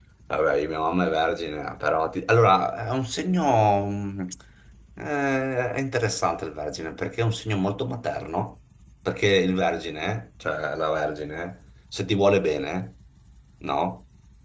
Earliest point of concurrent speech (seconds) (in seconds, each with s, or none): none